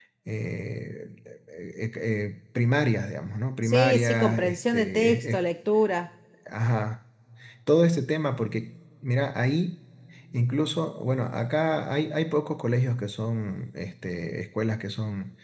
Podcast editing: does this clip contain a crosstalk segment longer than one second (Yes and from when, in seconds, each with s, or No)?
Yes, from 3.6 s